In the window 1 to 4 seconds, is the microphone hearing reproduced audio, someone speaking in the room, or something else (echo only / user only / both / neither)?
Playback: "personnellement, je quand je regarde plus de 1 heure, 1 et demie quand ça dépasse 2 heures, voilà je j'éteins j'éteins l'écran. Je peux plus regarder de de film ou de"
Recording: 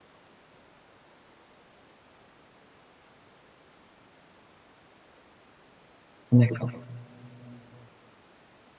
neither